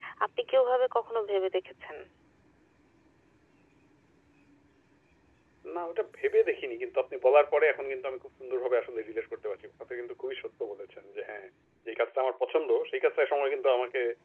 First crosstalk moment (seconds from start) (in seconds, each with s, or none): none